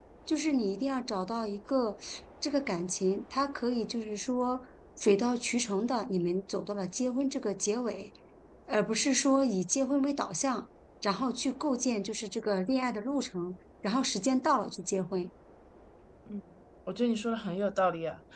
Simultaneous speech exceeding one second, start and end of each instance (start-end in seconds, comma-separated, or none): none